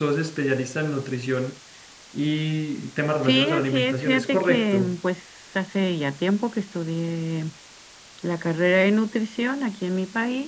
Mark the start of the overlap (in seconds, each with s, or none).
3.2 s